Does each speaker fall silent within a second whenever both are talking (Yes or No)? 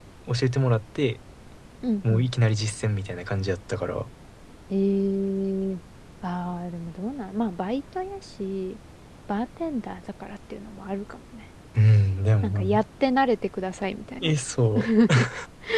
Yes